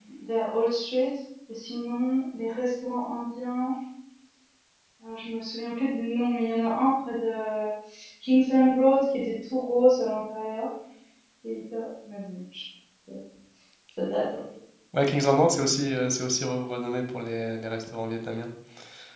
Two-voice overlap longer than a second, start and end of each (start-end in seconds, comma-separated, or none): none